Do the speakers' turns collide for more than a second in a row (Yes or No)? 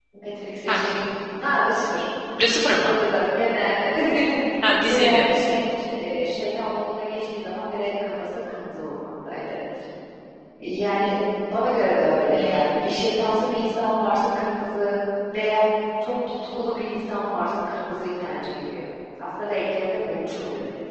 No